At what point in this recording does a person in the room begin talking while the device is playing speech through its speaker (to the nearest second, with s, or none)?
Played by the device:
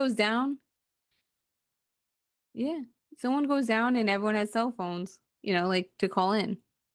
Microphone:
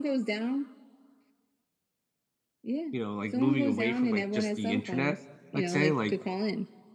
3 s